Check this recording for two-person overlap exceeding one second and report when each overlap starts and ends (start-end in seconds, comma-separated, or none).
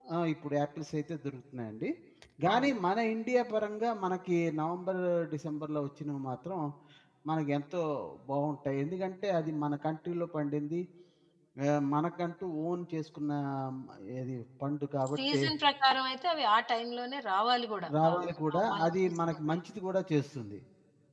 18.0-19.6